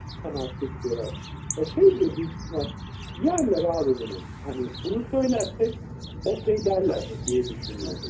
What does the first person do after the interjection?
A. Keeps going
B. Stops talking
B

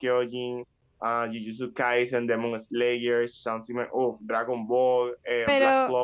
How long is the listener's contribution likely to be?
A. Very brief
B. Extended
B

